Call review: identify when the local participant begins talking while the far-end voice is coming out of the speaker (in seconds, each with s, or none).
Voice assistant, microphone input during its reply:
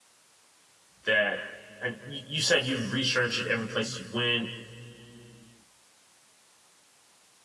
1.0 s